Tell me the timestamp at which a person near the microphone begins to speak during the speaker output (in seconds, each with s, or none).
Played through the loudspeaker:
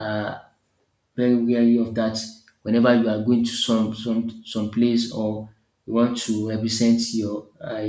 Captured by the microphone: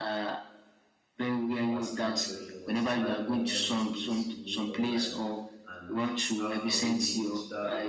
1.6 s